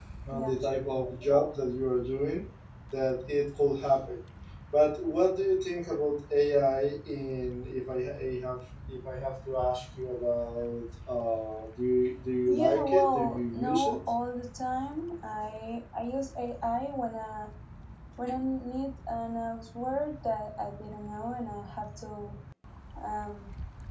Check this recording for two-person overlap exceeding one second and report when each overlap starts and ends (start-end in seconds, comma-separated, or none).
12.5-14.0